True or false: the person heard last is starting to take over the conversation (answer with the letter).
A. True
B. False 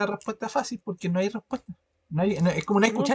B